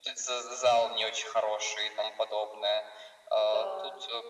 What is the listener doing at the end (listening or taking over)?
listening